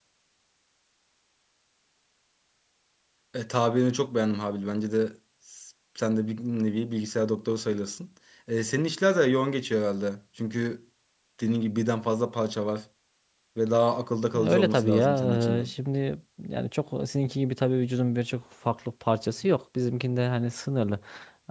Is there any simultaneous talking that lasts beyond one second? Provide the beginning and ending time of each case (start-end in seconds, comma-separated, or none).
14.3-15.7